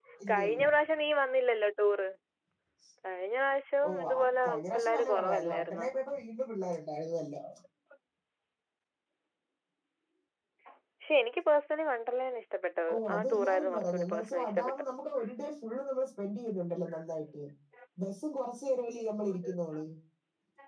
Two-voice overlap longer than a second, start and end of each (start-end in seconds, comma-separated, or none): 4.5-5.9, 12.9-14.8